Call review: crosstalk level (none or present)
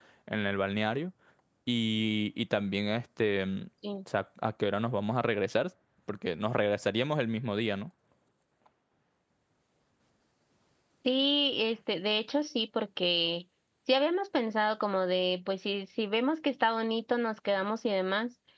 none